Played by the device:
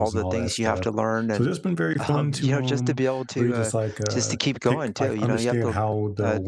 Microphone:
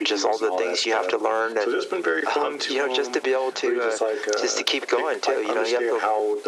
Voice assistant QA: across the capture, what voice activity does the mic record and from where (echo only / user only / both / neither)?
echo only